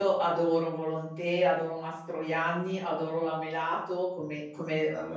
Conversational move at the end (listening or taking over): listening